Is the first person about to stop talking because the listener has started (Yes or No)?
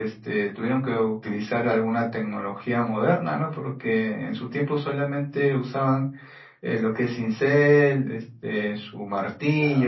Yes